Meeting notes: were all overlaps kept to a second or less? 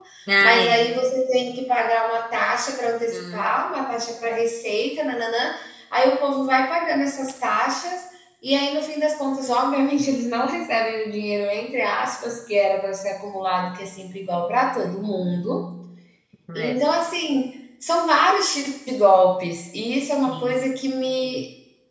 Yes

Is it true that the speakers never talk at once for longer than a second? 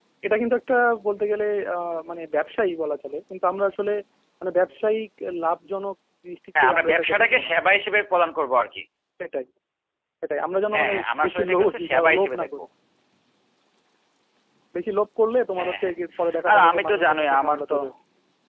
No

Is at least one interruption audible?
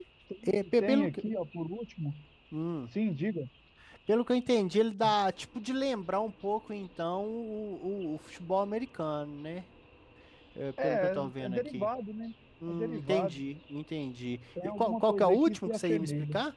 Yes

